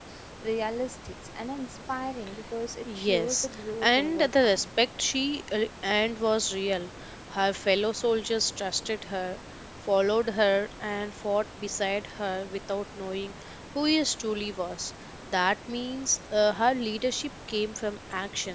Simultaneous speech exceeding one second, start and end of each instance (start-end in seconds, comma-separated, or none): 2.9-4.7